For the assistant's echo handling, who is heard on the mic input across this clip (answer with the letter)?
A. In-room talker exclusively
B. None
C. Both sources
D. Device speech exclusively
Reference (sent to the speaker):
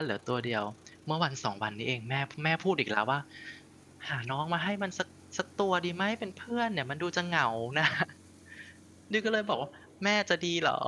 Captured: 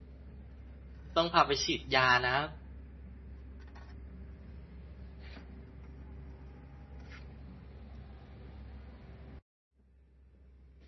A